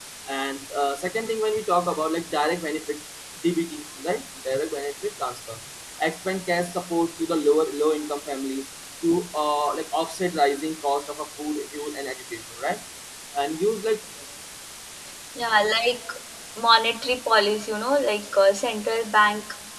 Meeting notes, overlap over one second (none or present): none